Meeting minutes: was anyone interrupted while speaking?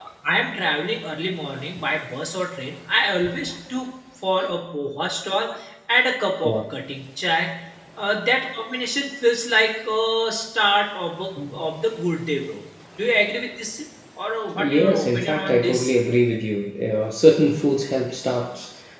Yes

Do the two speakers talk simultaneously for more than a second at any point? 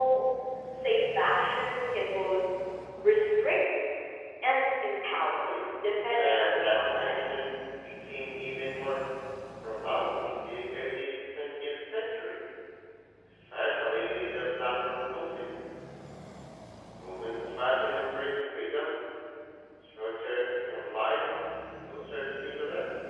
Yes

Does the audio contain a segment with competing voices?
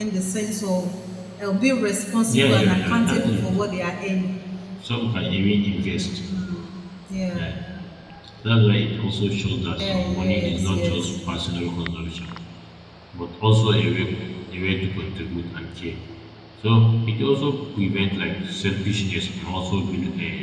Yes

